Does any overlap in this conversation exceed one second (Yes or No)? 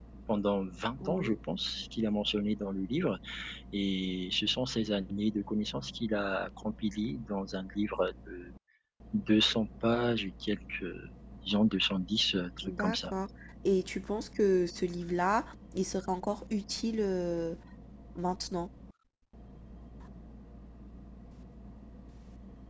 No